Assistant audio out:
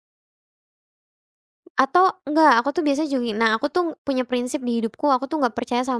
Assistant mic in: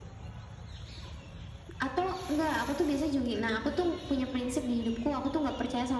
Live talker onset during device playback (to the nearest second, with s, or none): none